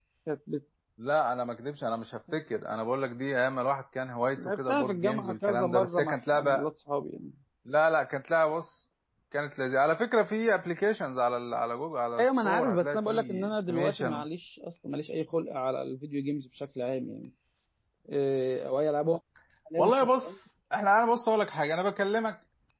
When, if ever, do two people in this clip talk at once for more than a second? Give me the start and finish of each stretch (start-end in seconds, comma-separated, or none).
4.4-6.7, 12.2-14.2